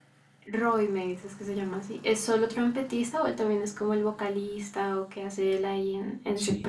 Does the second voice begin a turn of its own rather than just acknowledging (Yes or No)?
Yes